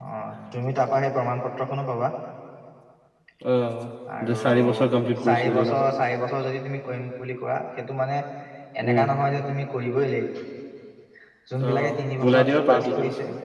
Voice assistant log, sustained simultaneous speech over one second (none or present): present